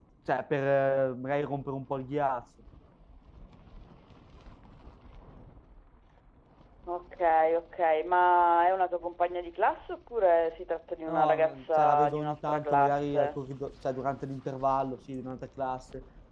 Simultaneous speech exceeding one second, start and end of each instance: 11.1-13.3

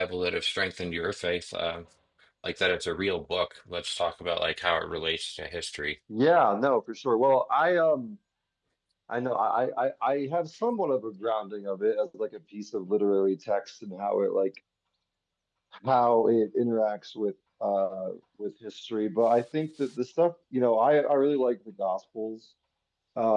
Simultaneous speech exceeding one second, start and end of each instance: none

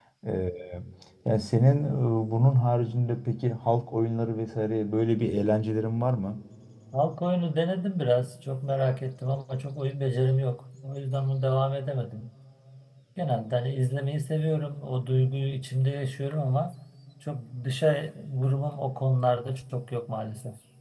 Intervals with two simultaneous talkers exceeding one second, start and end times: none

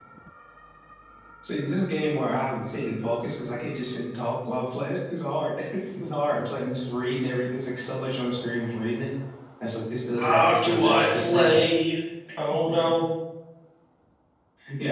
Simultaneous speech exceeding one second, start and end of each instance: 10.2-11.6

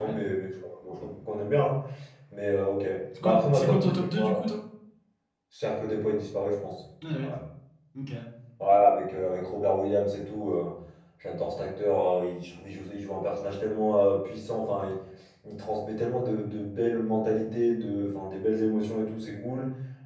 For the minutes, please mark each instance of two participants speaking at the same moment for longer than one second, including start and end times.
3.2-4.4

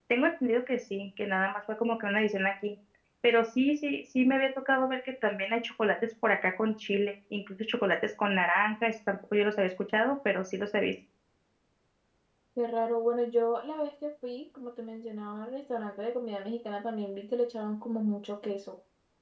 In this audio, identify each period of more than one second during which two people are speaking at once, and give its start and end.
none

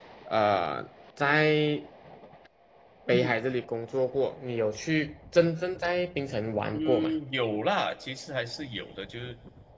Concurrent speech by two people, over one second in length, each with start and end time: none

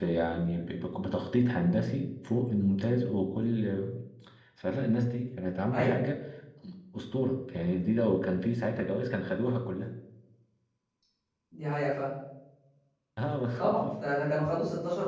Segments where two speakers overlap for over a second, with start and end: none

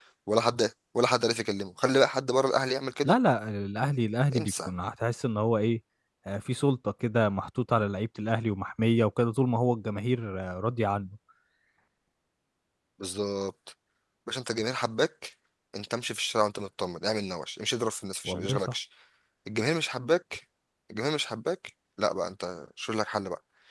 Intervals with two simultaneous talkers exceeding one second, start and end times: none

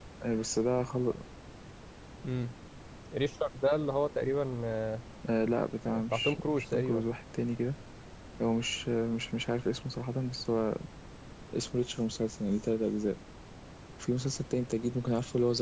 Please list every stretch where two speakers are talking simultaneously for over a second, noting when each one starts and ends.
5.9-7.2

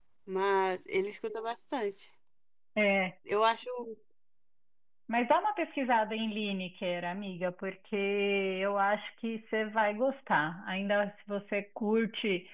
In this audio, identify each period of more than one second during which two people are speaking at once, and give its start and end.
none

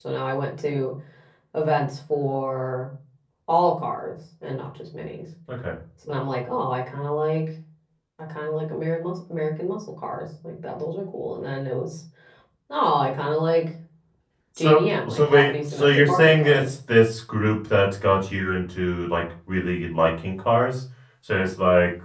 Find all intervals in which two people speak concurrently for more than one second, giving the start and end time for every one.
14.6-16.7

